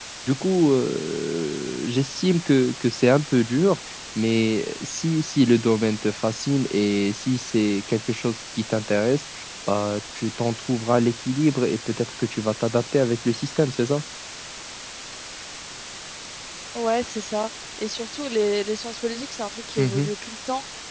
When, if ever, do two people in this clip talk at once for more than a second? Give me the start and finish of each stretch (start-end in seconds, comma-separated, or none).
none